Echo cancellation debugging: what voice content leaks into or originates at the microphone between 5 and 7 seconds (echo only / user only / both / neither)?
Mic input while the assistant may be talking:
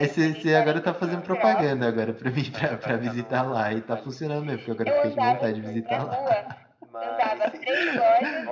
both